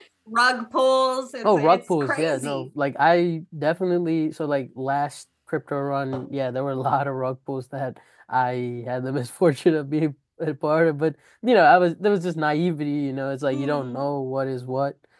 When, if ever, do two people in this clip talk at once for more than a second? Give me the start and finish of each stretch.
1.4-2.7

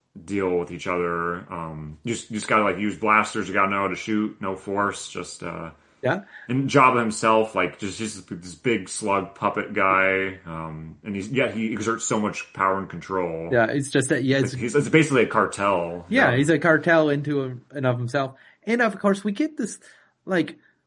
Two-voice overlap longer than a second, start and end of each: none

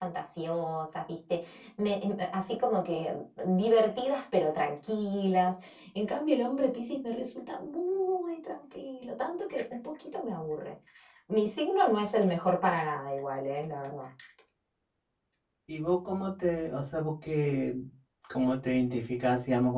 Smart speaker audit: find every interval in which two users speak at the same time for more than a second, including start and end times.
none

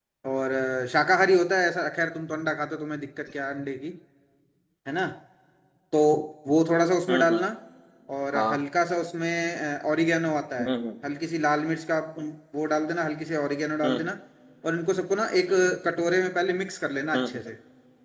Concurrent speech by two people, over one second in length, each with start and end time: none

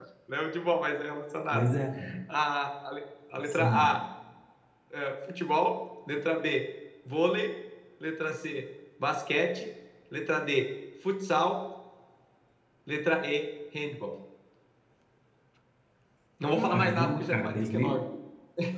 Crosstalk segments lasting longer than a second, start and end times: 16.5-18.0

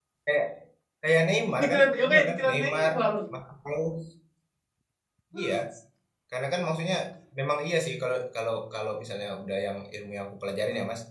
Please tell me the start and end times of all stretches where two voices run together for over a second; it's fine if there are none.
1.6-2.9

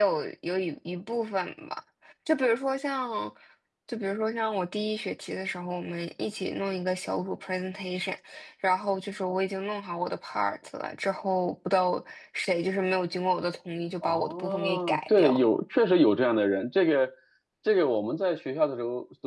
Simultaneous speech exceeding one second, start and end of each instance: 14.0-15.4

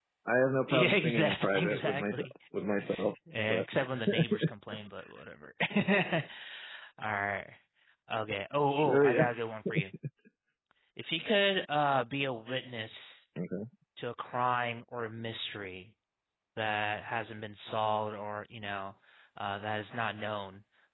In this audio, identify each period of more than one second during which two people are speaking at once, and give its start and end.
0.7-2.2

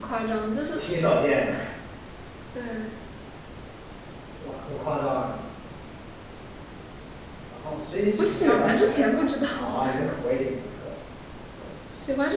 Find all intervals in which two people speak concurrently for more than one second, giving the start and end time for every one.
8.2-10.0

